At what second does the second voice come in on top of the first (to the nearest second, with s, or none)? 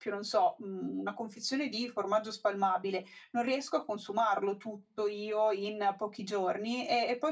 none